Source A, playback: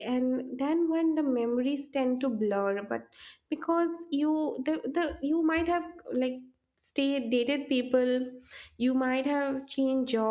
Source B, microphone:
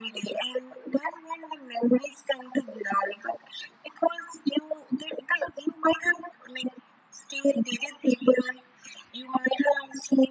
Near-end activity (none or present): none